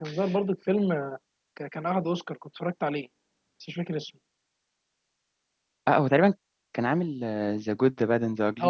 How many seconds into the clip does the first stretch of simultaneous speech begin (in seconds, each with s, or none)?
none